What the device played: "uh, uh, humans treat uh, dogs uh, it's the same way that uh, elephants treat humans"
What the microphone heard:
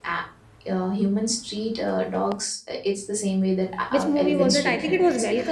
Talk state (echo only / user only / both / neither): both